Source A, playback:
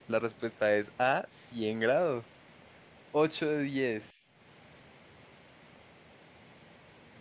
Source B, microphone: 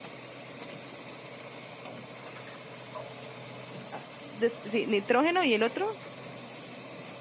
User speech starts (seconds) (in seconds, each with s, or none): 3.9 s